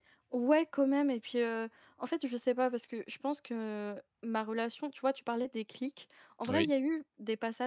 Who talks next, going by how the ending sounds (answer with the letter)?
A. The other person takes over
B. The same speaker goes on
B